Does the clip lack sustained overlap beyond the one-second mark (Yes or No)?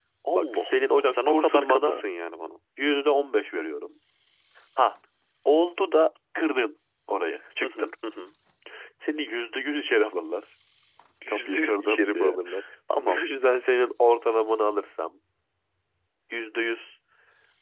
No